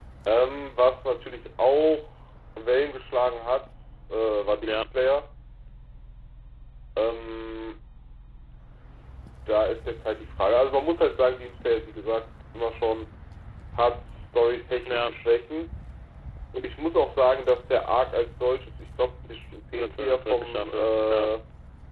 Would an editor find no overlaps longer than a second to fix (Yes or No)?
No